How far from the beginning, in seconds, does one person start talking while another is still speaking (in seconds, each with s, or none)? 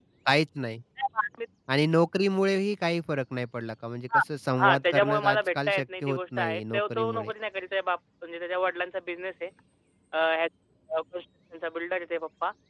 4.6 s